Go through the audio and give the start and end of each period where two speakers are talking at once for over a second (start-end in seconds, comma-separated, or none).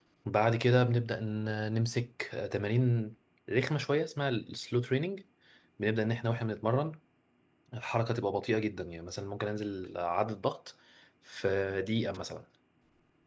none